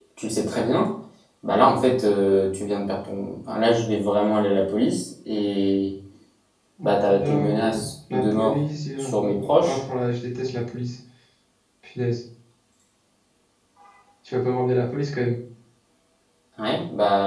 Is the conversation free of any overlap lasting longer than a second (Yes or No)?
No